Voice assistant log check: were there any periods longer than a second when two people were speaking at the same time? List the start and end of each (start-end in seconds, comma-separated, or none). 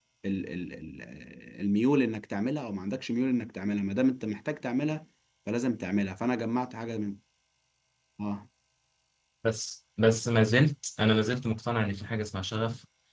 none